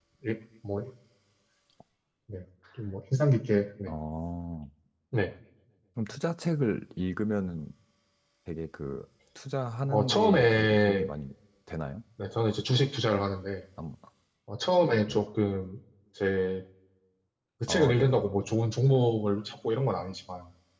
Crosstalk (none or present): present